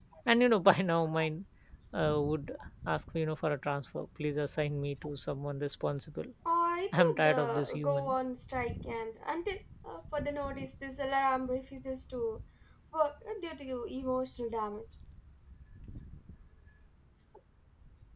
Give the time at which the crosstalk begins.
6.9 s

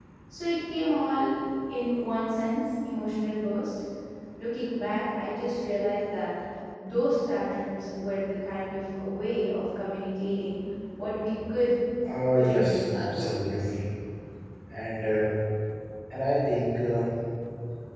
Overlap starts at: 12.3 s

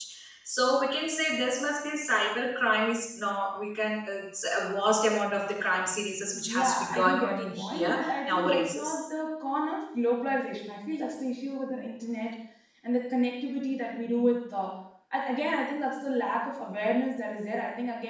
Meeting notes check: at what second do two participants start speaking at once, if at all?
6.3 s

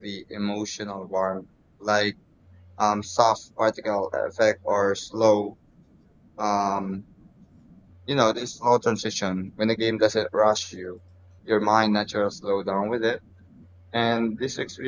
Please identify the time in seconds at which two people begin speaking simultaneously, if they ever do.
none

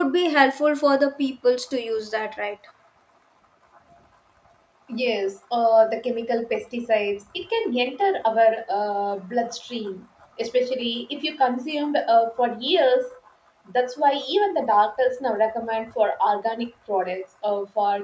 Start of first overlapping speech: none

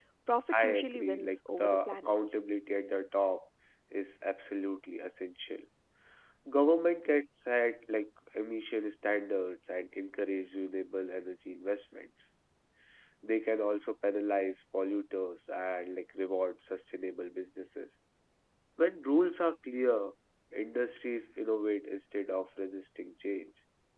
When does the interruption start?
0.5 s

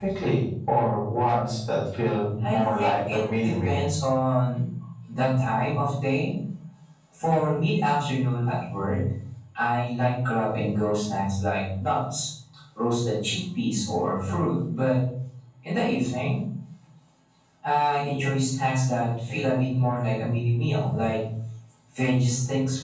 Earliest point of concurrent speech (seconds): 2.4 s

